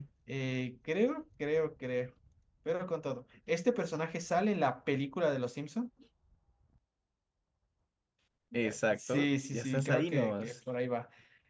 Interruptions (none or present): present